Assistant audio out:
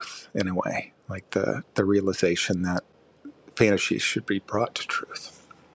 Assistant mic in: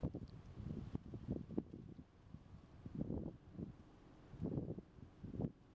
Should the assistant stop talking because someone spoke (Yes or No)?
No